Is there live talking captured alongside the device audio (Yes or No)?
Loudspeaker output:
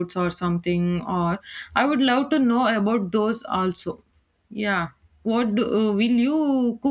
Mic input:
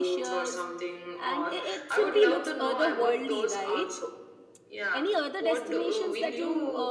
Yes